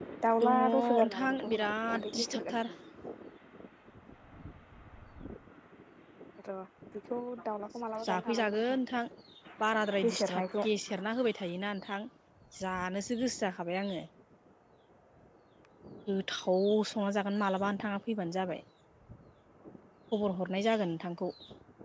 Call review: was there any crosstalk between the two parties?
Yes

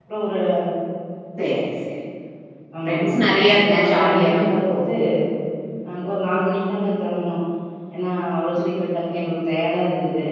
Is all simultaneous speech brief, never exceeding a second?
No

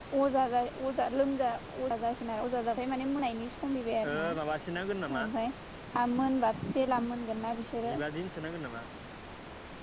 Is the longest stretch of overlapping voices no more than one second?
Yes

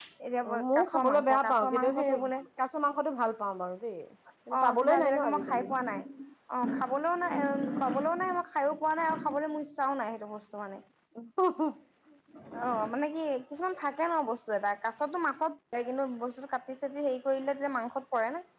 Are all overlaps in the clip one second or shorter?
No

